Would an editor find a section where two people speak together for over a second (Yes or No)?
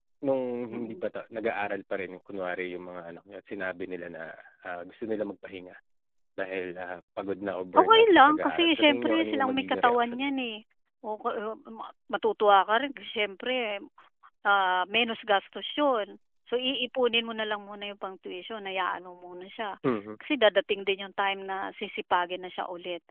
Yes